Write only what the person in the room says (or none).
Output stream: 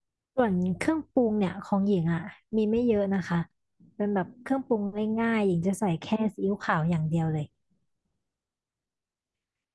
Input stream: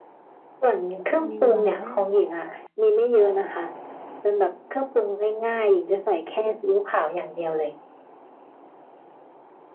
เป็นเมนูอะไรนะ